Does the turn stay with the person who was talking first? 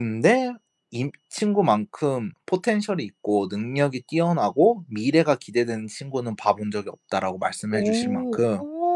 No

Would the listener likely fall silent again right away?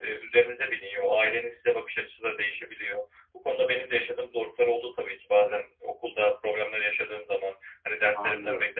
Yes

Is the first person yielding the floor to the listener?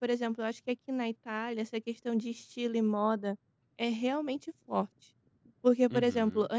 No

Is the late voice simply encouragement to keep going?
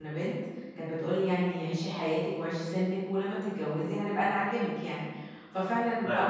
Yes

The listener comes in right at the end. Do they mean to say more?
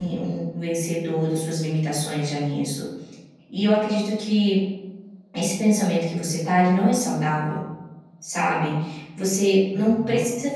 No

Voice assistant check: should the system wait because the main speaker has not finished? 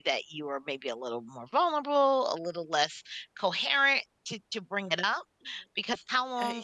Yes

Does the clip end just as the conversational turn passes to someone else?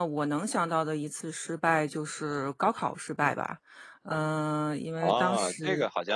Yes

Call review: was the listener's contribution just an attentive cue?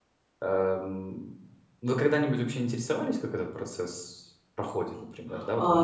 No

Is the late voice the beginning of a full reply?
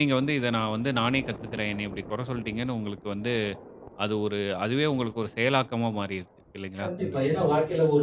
Yes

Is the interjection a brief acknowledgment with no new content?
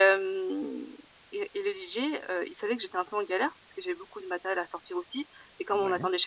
Yes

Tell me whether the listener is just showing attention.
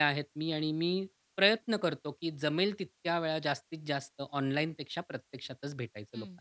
No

